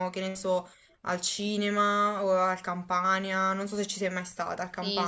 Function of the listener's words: taking over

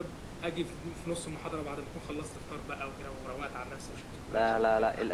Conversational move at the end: taking over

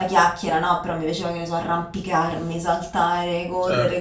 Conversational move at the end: listening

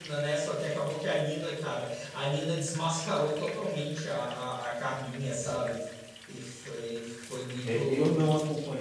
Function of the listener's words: taking over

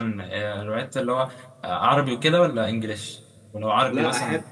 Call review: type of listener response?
taking over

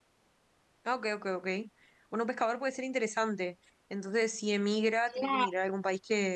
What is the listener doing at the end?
listening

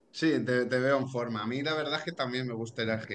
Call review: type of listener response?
listening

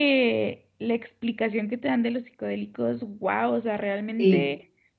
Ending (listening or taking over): listening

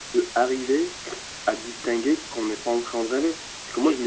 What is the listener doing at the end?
listening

